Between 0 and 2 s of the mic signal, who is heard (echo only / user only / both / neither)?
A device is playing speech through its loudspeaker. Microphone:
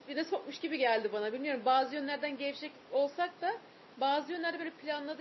user only